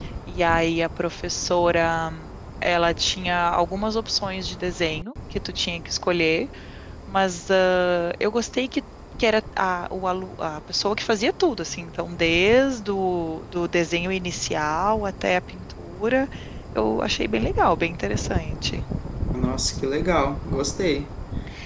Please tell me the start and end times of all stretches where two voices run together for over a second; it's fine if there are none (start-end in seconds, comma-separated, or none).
none